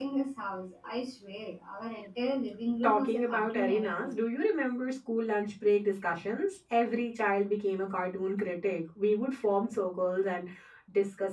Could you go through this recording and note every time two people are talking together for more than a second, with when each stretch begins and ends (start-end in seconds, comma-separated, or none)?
2.8-4.1